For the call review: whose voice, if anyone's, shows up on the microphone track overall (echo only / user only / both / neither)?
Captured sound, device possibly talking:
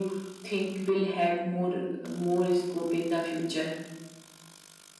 echo only